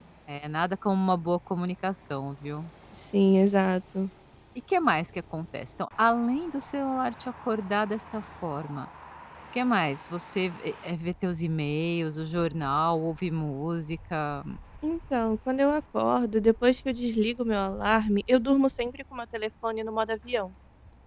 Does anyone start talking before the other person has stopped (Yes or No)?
No